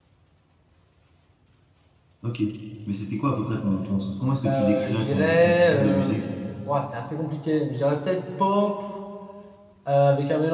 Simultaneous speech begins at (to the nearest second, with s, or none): 4 s